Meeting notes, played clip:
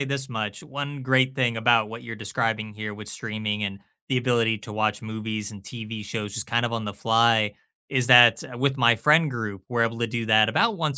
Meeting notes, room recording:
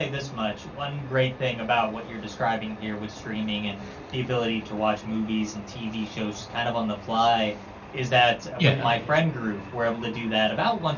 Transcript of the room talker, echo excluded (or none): Yeah.